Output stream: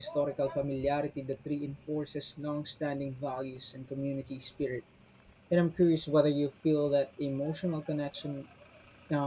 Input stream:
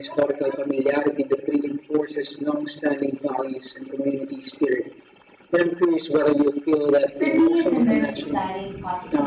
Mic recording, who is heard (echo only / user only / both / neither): both